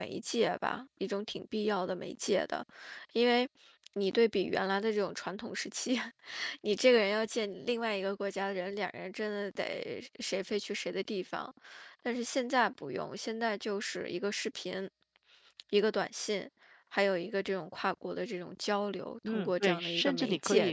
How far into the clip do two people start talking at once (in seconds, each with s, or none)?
19.2 s